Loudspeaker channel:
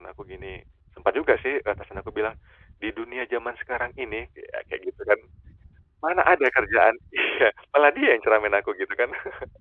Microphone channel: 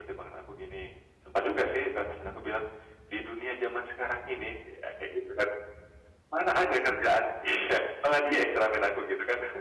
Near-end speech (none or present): none